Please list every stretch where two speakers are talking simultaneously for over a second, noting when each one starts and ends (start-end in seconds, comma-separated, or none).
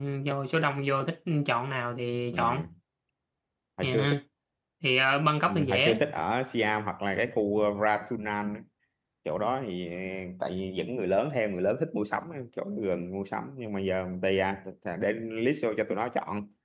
none